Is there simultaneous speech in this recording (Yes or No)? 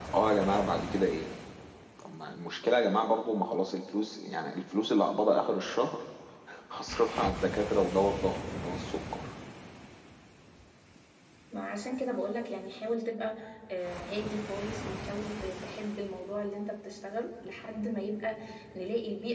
No